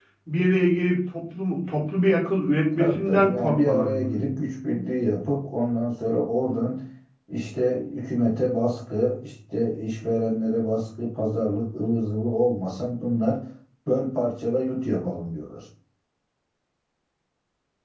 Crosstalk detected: Yes, from 2.8 s

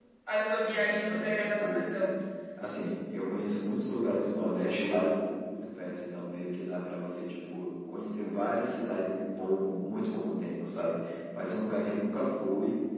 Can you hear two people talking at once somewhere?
Yes, from 0.6 s

